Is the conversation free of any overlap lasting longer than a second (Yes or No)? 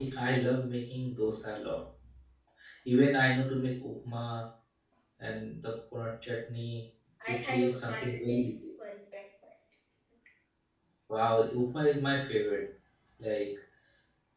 No